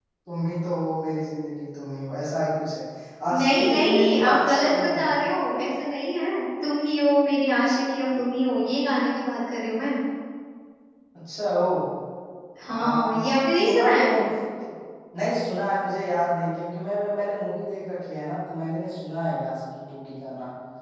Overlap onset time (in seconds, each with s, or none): 3.3 s